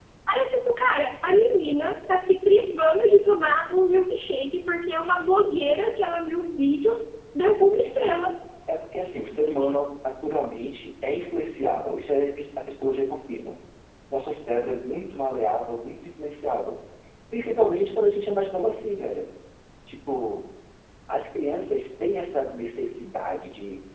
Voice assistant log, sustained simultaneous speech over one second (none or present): none